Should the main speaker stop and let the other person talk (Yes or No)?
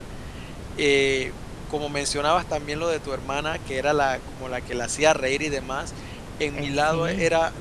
No